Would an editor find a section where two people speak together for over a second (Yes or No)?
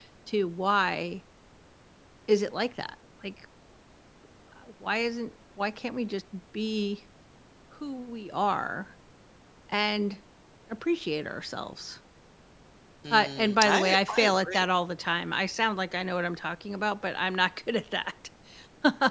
Yes